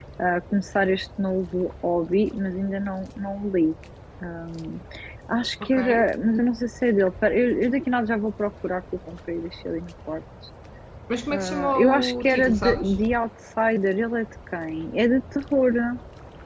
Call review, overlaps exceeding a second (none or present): present